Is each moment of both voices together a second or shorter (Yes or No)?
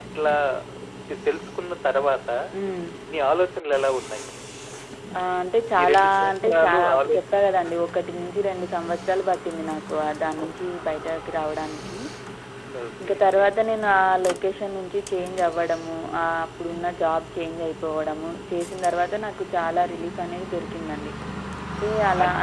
No